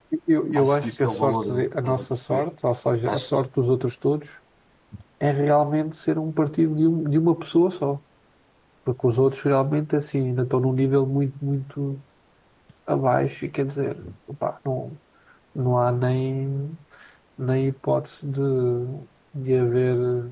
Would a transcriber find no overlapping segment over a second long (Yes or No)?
No